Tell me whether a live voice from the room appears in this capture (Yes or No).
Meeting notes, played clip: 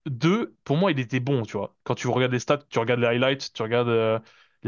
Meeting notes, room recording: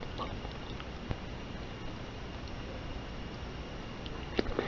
No